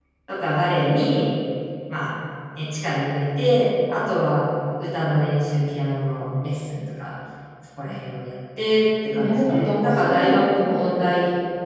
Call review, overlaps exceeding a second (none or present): present